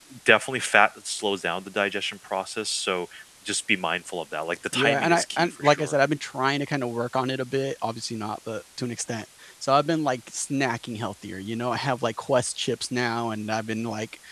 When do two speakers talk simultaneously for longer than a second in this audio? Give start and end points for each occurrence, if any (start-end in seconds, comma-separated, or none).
4.7-6.0